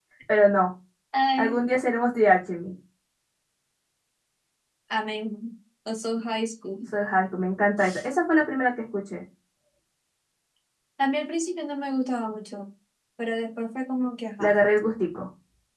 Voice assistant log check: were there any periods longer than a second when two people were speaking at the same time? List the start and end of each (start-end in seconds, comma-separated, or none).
none